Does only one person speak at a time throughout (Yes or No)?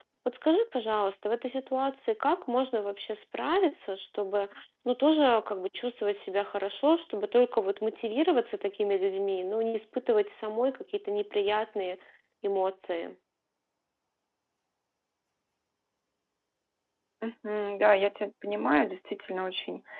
Yes